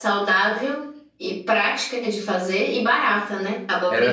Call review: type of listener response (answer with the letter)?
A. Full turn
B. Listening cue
A